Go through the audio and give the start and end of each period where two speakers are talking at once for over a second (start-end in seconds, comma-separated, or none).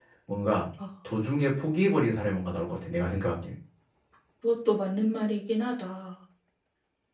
none